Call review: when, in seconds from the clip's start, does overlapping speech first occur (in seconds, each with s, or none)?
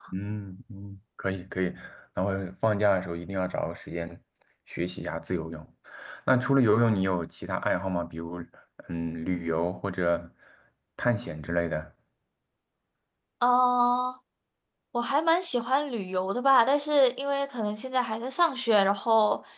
none